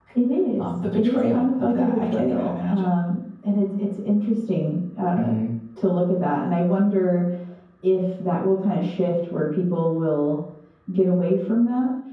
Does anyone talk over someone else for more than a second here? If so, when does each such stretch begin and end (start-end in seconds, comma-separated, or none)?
0.6-2.9